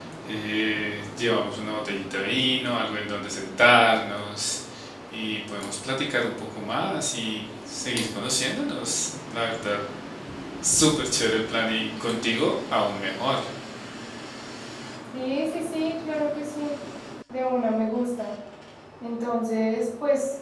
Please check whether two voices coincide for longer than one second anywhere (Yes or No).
No